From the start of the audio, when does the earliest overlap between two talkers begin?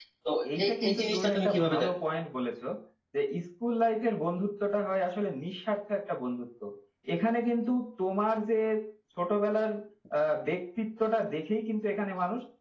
0.6 s

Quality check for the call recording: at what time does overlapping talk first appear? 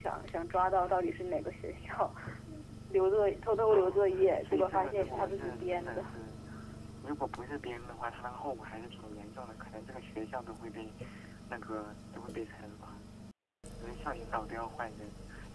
3.6 s

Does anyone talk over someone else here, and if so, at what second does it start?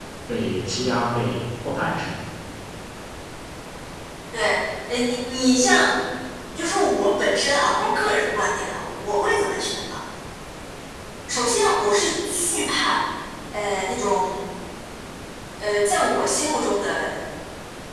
none

